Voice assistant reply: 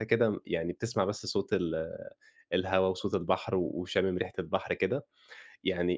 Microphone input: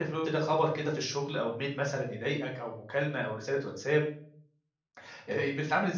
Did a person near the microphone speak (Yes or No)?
Yes